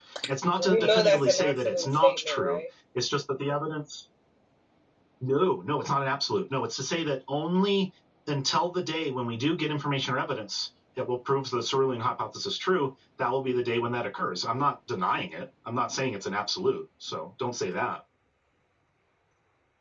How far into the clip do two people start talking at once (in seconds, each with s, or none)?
0.6 s